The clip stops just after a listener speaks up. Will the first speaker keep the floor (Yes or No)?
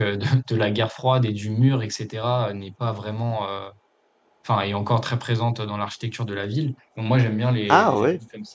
Yes